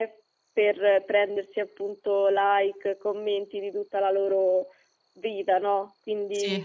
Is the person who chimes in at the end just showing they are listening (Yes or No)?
Yes